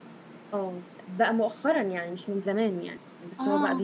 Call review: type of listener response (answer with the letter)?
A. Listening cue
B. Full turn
A